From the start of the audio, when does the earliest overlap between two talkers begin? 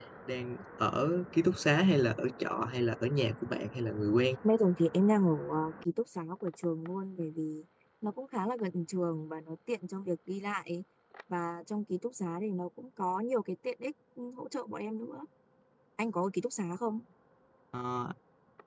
none

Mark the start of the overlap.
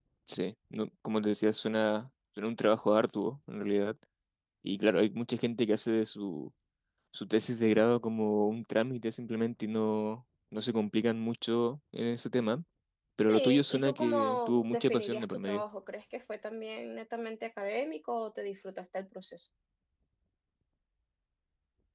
13.2 s

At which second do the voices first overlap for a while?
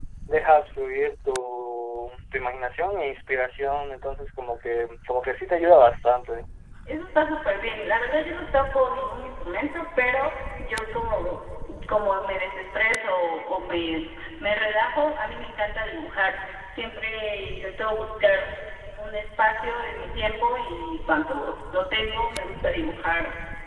none

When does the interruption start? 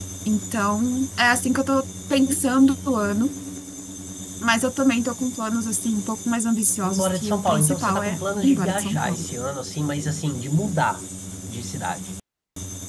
6.8 s

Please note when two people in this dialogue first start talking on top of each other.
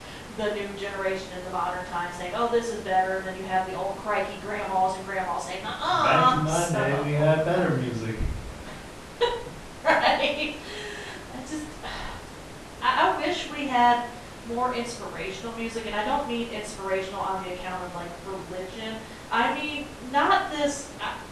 5.9 s

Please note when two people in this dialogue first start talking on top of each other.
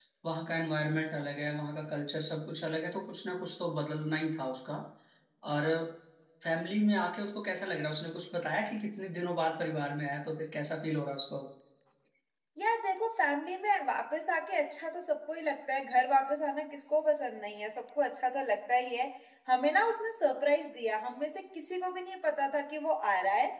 none

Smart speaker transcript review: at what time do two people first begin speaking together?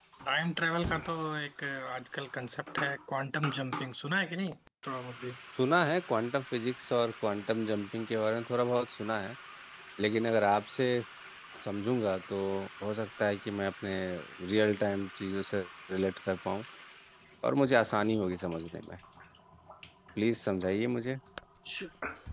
none

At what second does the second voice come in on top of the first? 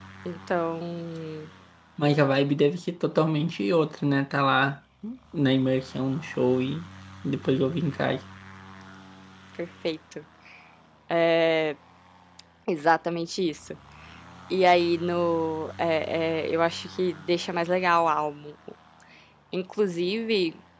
none

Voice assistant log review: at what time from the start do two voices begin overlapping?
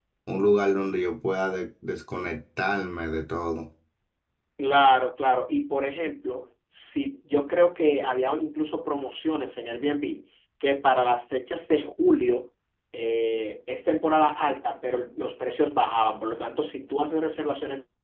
none

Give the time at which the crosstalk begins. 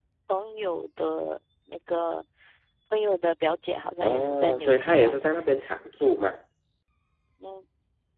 4.0 s

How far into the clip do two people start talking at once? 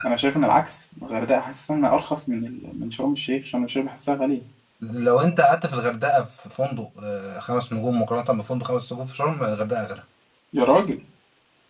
none

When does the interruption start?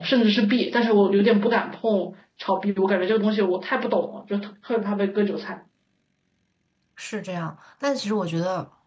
none

